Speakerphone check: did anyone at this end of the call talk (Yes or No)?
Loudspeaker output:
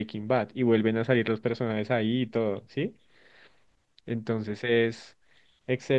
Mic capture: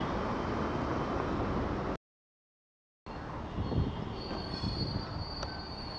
No